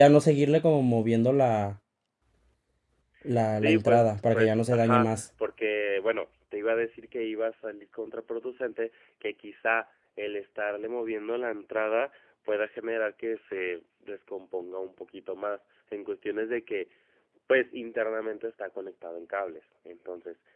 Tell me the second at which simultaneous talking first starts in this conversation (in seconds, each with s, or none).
3.5 s